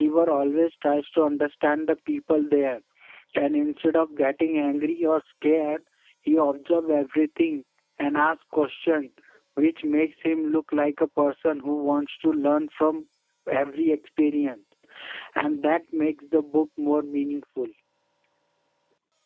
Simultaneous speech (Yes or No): No